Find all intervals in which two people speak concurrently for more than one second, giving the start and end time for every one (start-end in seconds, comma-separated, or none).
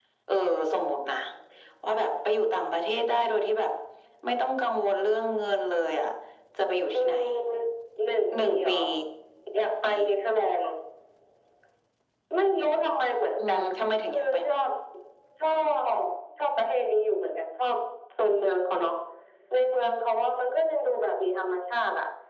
none